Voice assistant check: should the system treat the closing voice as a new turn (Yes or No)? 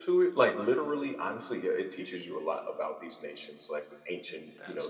No